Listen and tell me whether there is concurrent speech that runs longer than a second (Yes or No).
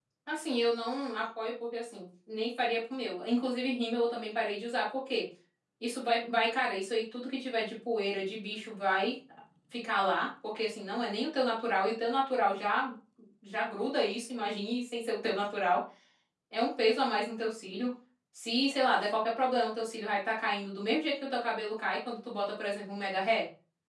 No